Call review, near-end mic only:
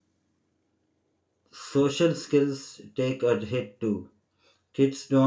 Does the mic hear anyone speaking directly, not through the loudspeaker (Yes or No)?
Yes